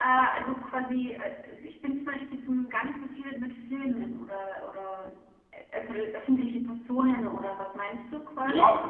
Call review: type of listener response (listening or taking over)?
taking over